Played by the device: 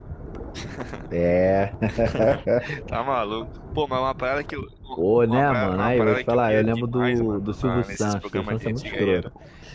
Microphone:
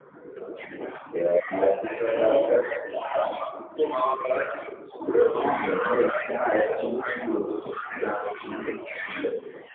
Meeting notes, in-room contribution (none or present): none